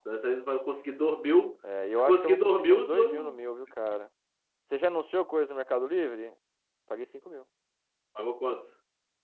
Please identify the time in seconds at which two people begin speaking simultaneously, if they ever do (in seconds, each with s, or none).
1.9 s